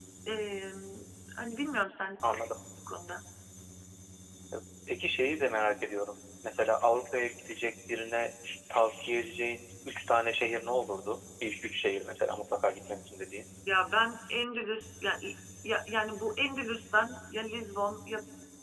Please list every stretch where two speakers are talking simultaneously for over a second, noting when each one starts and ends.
none

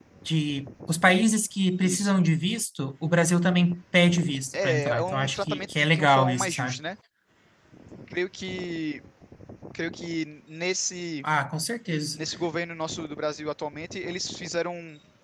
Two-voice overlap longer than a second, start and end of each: 4.5-6.8

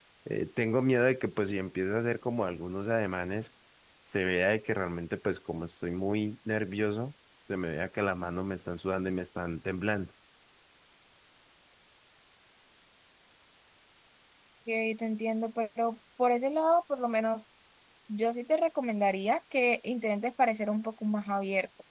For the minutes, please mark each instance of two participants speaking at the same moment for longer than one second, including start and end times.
none

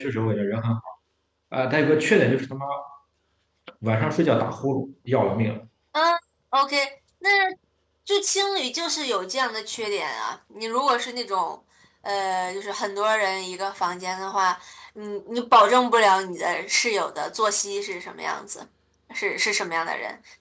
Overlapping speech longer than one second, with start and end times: none

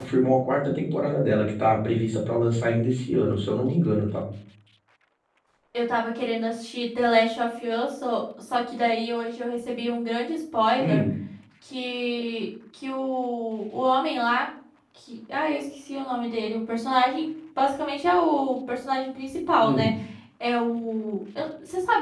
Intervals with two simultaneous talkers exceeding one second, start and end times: none

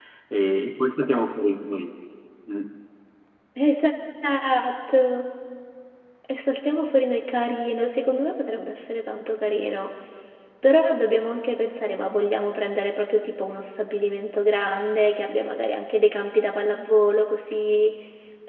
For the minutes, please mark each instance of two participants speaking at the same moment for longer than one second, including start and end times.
none

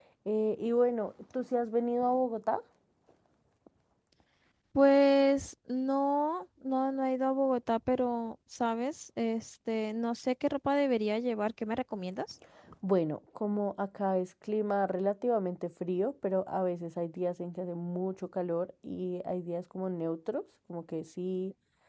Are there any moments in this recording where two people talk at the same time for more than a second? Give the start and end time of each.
none

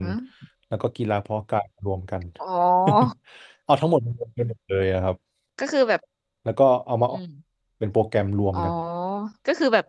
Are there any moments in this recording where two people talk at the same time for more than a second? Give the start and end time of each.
none

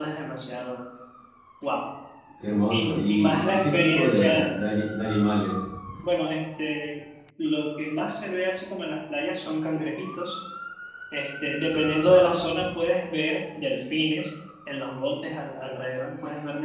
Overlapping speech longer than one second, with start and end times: 2.7-4.5

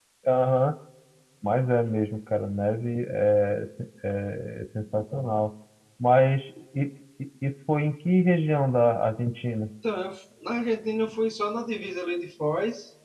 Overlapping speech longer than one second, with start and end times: none

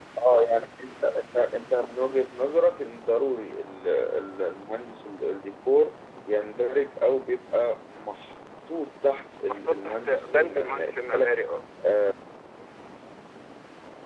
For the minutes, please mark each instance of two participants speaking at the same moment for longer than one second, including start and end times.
9.4-11.3

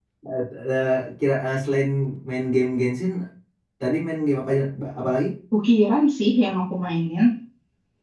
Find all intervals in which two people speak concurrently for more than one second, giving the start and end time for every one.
none

